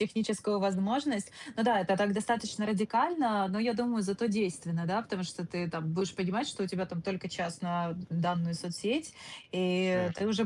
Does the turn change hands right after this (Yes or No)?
No